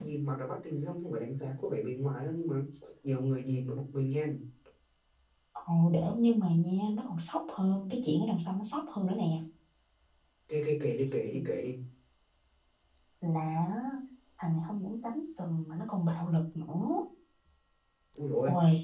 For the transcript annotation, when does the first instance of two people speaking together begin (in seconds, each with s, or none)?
none